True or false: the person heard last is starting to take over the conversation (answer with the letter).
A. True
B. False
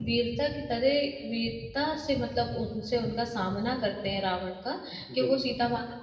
B